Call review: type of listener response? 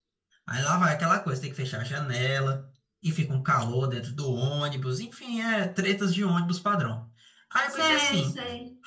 taking over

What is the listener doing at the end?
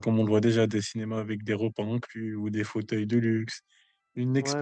taking over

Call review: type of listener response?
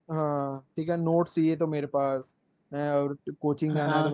listening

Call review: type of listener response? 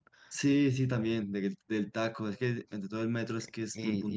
taking over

